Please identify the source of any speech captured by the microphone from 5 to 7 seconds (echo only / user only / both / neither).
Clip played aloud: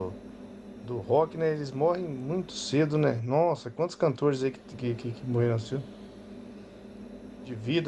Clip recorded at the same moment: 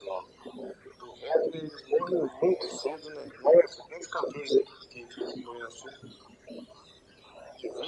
echo only